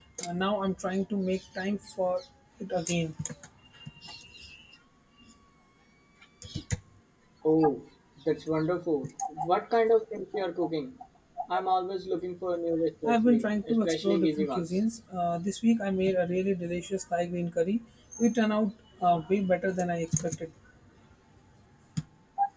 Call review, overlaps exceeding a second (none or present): present